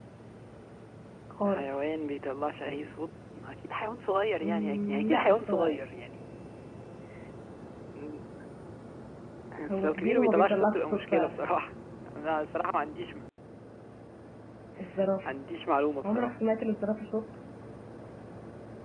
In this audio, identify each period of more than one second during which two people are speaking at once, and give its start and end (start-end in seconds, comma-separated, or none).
4.4-5.8, 9.7-11.4